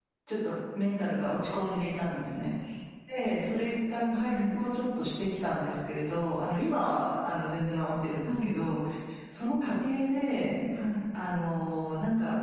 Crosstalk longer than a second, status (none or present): none